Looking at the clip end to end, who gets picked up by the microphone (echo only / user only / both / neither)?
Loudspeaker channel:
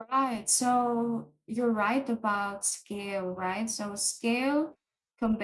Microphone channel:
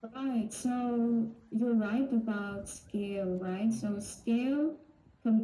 both